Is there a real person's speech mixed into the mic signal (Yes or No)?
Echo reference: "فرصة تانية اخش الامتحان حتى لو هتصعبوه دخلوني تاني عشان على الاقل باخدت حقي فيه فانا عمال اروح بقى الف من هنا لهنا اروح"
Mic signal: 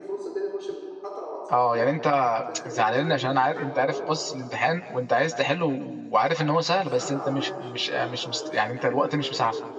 Yes